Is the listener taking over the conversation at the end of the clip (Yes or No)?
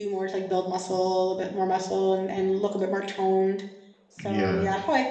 No